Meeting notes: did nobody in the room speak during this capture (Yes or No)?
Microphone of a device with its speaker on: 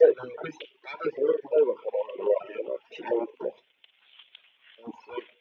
Yes